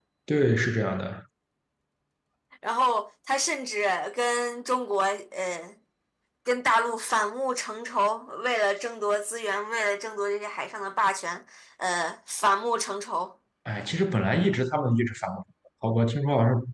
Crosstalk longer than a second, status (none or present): none